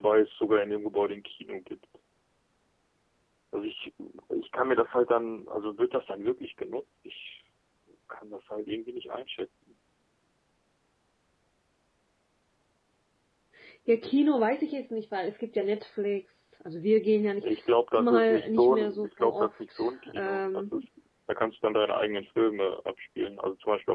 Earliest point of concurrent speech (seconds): 18.0 s

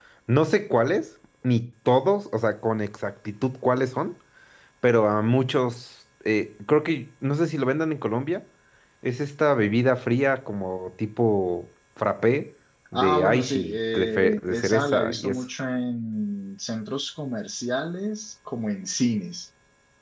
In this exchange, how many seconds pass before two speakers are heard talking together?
12.9 s

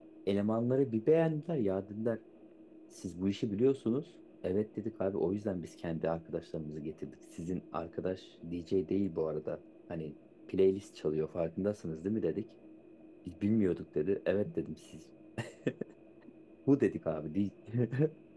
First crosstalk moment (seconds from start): none

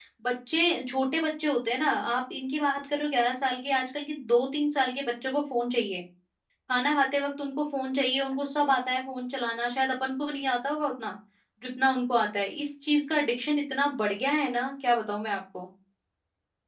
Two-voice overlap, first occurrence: none

